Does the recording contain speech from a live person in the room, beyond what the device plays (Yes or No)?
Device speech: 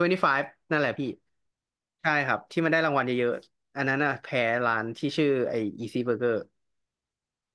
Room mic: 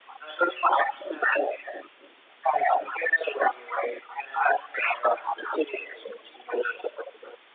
No